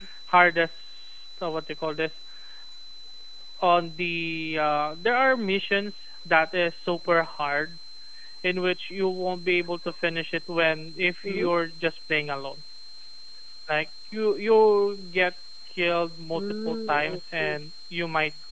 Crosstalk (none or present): present